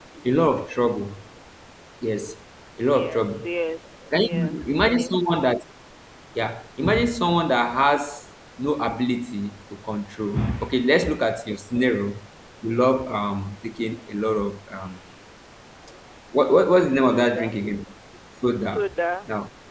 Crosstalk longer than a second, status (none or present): present